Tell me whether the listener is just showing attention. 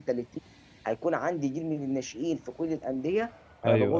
Yes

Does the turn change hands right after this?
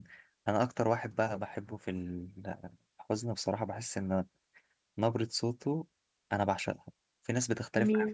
No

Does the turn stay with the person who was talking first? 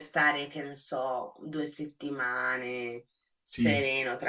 Yes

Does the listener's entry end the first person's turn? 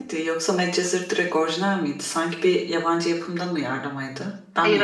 Yes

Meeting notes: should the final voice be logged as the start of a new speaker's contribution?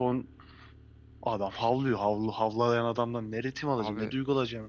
No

